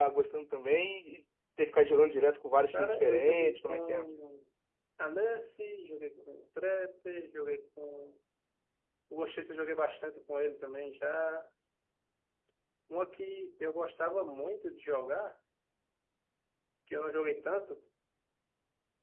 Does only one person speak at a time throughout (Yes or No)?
No